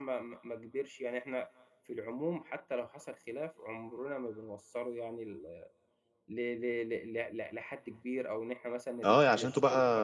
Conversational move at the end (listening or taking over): taking over